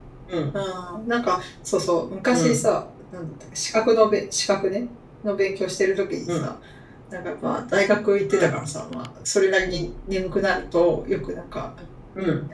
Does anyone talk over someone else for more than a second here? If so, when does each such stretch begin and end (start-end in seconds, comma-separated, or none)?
none